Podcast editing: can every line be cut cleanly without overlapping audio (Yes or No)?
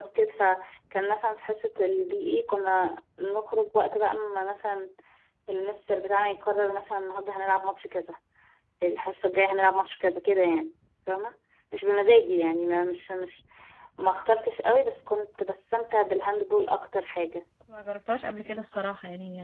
Yes